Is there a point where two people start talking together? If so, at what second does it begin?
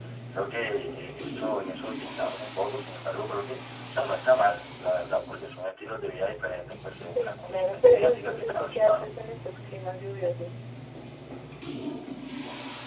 7.2 s

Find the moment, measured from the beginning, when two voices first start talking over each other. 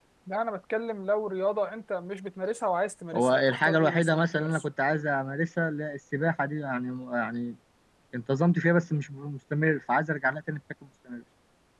3.1 s

